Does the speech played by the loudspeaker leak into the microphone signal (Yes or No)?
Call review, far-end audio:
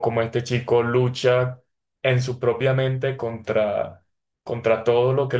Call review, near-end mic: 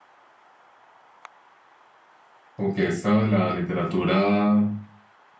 No